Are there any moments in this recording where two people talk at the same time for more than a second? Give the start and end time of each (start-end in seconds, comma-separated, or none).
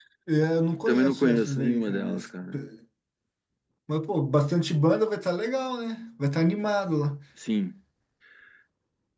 0.9-2.2